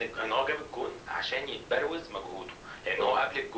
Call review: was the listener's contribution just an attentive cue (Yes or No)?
Yes